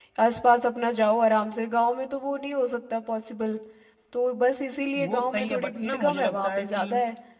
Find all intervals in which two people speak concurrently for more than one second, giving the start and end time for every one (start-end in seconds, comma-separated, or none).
5.0-6.9